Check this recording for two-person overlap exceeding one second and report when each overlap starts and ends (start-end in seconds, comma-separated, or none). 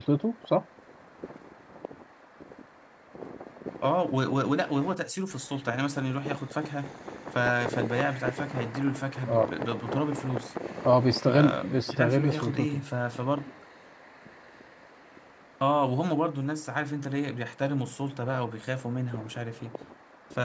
11.3-12.8